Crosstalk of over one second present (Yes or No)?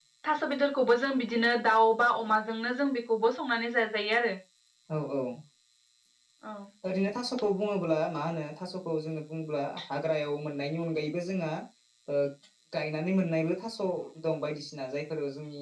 No